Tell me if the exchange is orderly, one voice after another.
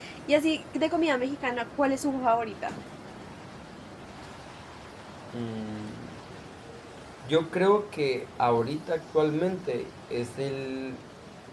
Yes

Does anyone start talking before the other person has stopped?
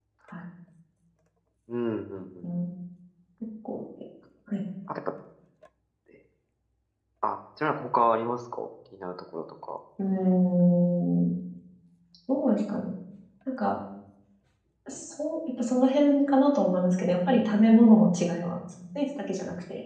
No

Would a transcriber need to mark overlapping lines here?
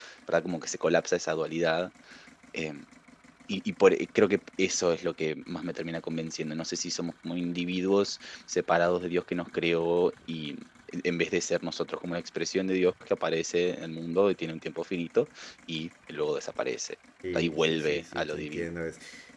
Yes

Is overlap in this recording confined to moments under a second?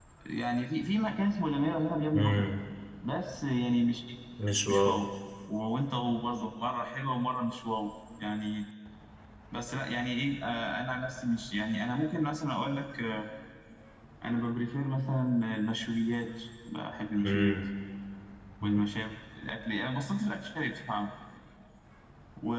Yes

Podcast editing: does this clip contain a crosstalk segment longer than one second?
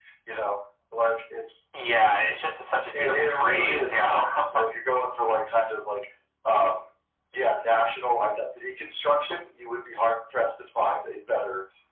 Yes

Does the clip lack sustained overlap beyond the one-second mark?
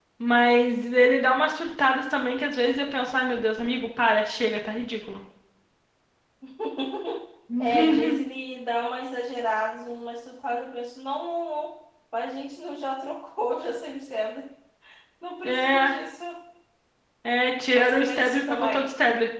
No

